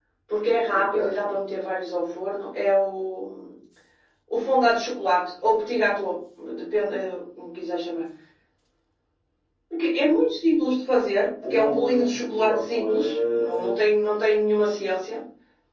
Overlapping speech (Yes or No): Yes